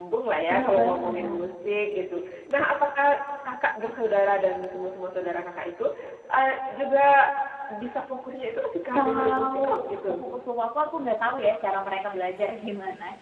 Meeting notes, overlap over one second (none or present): present